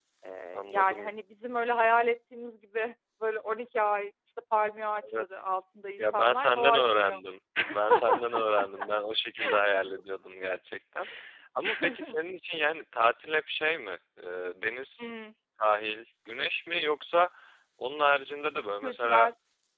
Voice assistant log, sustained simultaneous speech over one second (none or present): present